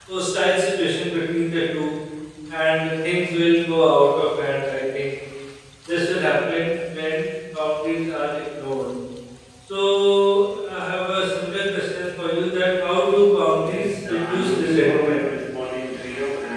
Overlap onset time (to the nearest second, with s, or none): 14 s